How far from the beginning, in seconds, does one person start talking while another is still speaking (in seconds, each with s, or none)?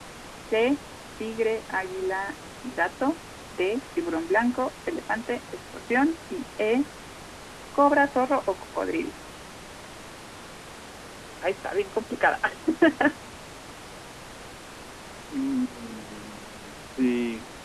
none